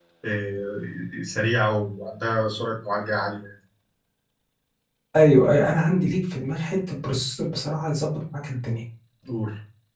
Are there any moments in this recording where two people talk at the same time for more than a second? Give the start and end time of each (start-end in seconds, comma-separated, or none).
none